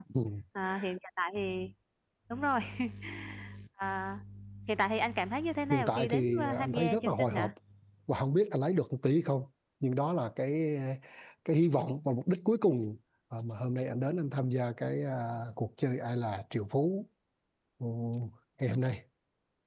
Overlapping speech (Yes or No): Yes